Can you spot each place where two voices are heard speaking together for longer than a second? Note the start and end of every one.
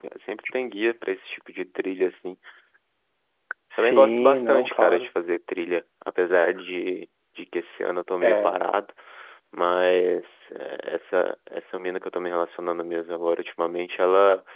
3.8-5.1

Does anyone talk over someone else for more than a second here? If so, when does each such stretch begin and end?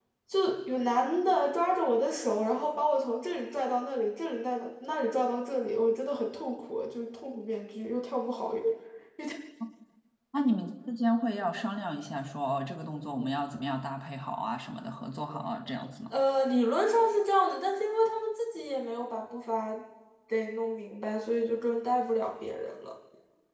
none

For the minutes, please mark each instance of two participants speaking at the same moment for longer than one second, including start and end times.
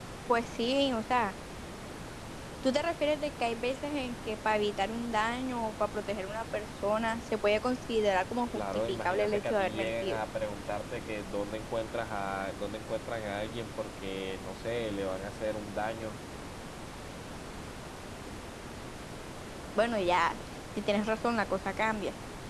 8.6-10.2

